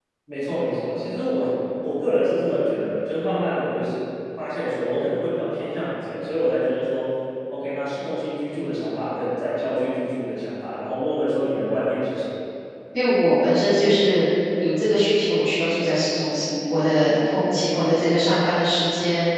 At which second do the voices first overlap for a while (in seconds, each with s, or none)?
none